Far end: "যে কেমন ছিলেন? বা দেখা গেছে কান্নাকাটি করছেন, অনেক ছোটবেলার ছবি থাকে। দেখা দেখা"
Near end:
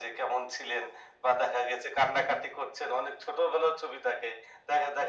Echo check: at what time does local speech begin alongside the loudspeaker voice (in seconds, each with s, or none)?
none